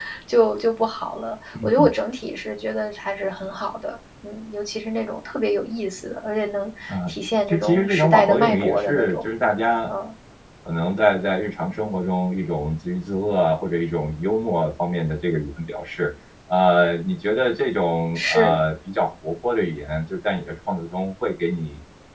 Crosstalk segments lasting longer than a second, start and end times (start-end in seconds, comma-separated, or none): 7.5-9.2